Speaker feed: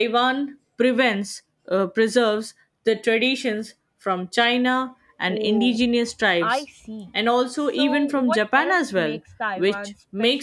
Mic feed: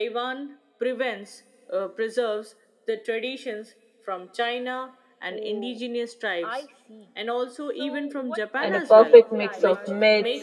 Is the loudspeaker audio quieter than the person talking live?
Yes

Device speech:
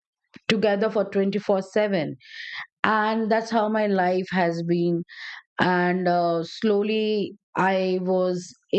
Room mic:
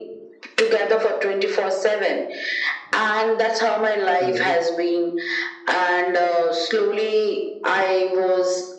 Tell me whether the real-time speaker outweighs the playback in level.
No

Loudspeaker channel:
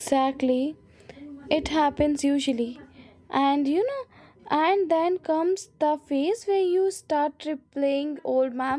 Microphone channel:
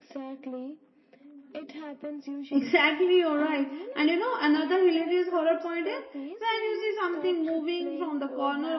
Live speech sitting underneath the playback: No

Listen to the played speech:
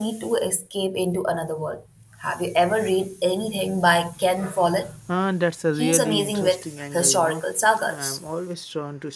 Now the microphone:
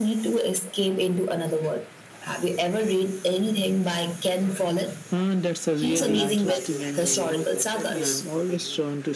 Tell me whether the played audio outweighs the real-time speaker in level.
Yes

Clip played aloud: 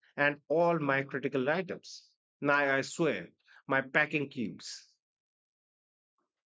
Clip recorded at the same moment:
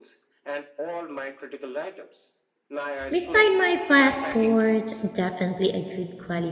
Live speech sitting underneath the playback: No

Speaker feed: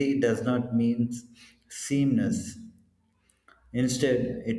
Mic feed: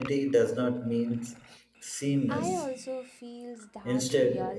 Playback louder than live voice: Yes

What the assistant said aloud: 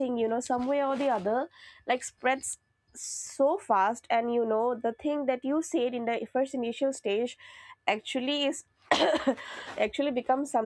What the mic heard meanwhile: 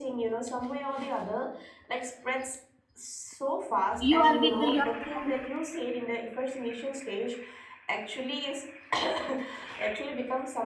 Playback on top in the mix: No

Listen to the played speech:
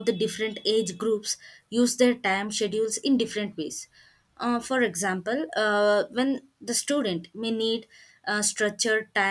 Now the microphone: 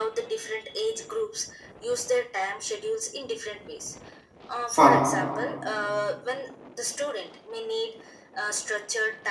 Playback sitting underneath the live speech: Yes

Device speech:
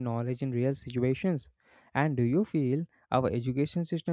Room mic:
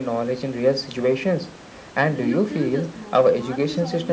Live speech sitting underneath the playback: Yes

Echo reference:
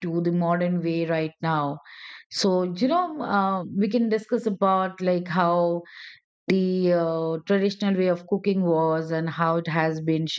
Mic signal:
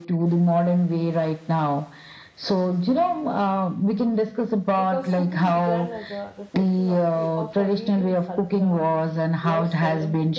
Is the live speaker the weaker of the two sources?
Yes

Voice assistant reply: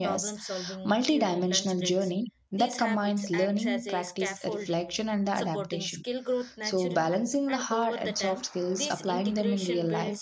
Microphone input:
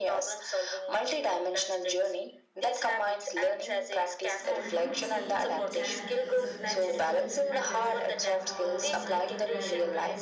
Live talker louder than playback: No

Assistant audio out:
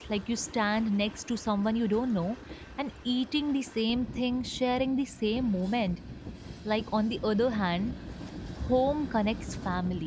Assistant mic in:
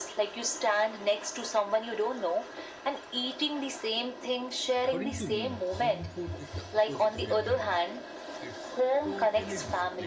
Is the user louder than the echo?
No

